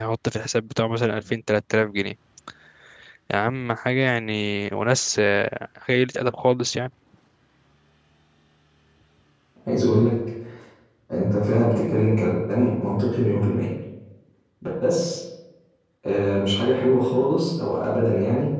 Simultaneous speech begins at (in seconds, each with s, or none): none